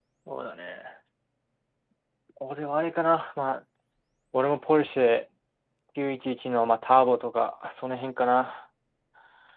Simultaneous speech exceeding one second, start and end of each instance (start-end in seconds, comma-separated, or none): none